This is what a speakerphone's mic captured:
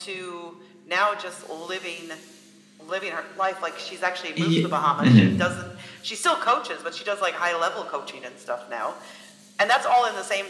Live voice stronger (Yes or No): Yes